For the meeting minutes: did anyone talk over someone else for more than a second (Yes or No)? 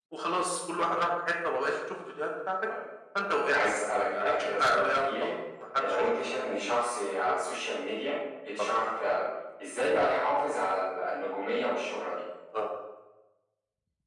Yes